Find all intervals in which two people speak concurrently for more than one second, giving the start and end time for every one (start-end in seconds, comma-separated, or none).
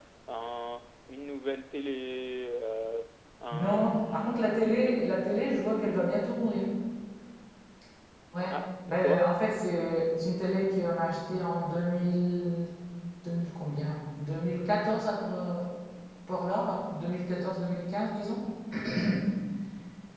3.5-4.7